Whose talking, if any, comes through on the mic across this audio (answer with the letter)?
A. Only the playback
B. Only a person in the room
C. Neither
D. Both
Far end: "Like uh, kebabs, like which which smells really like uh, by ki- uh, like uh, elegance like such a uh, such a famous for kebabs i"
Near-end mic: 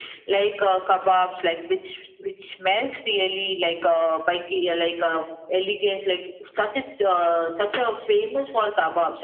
A